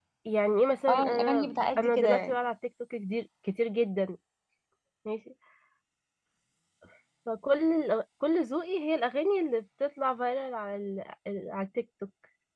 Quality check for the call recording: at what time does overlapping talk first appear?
0.9 s

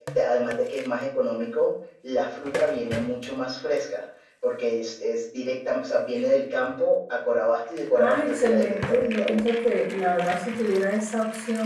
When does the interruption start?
7.9 s

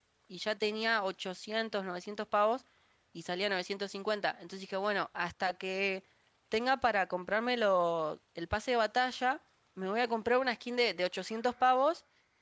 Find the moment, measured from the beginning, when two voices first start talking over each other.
none

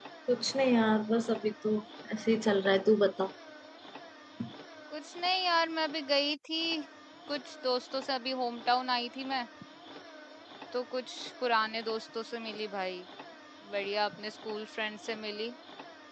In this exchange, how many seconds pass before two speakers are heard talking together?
none

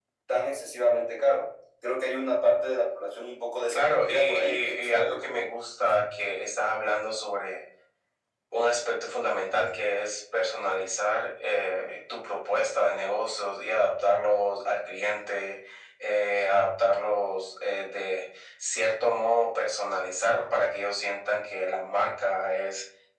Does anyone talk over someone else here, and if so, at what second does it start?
3.7 s

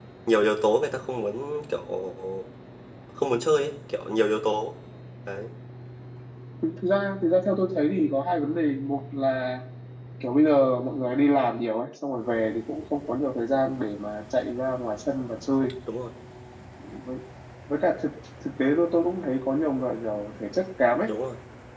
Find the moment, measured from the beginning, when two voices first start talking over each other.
none

